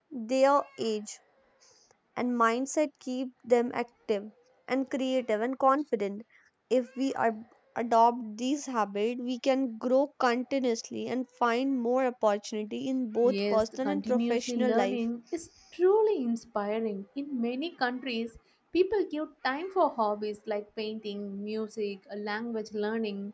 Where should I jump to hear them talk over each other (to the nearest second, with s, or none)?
13 s